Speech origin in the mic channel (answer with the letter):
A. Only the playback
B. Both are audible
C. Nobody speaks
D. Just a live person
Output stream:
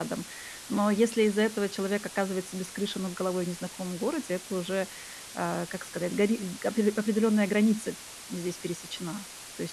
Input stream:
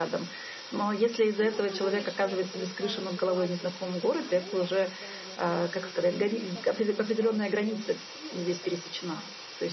B